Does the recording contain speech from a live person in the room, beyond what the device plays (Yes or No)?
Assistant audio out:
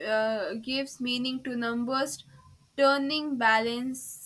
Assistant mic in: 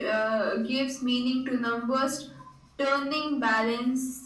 No